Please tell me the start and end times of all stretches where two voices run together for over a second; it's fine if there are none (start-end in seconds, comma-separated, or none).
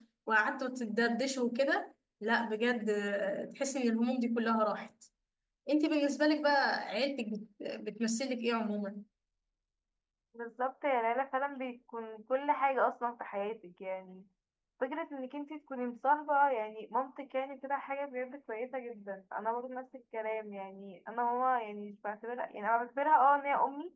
none